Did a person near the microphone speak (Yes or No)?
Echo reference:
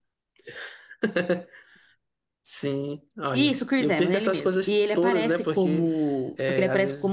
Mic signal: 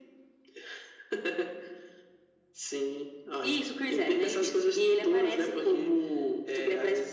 No